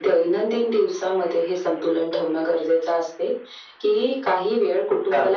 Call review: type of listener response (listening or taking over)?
listening